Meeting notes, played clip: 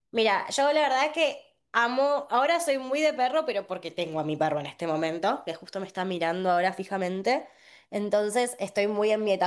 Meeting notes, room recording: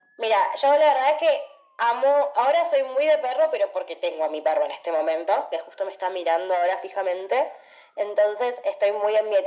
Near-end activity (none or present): none